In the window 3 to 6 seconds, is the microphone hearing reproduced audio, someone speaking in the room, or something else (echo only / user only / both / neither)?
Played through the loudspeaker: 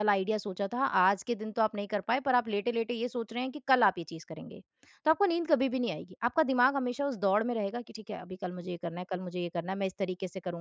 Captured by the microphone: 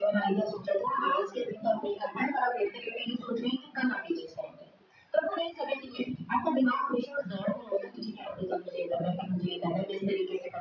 echo only